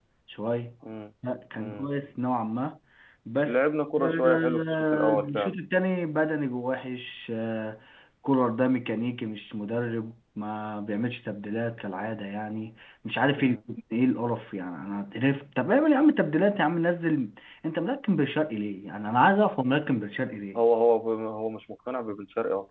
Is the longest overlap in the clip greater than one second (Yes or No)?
Yes